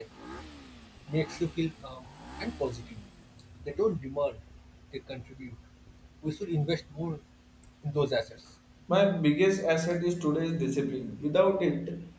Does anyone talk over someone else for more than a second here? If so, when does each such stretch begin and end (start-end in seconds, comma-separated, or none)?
none